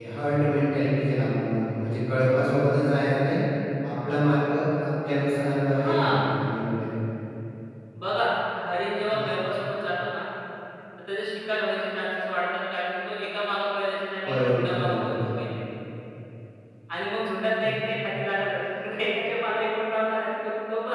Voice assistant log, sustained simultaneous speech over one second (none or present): present